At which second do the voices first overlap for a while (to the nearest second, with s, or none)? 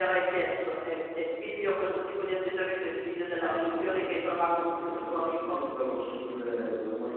3 s